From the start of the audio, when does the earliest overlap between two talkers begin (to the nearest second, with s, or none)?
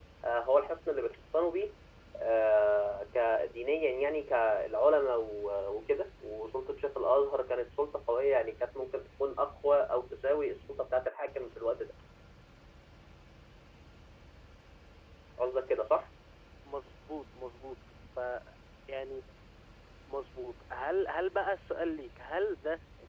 none